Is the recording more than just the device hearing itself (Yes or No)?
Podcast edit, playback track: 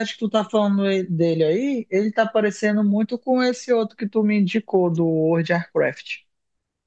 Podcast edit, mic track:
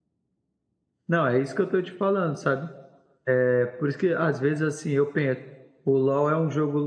Yes